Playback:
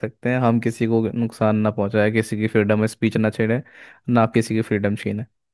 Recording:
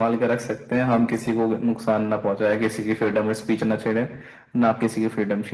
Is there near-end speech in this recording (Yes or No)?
No